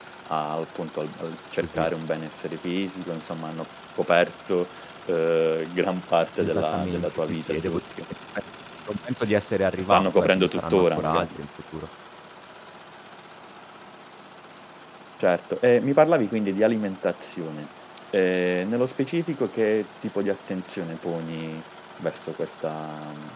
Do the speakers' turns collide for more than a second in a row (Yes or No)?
Yes